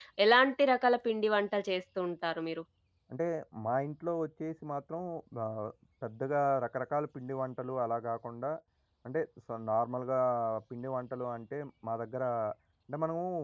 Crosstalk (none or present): none